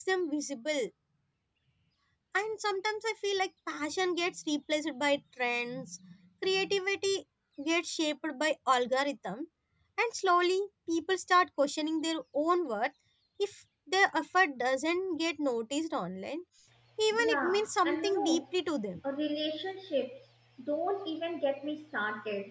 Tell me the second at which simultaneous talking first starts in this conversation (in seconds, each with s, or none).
17.2 s